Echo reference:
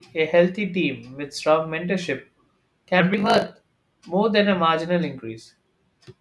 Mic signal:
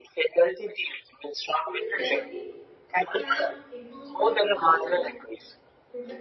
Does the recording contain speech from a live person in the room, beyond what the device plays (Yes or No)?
Yes